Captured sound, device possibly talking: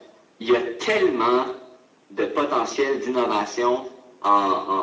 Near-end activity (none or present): none